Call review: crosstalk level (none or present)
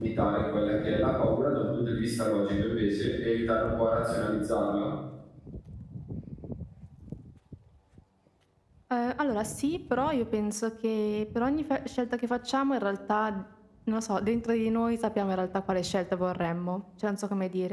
none